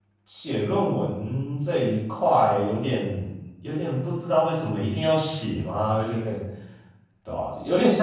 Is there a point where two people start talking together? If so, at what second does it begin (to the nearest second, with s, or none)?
none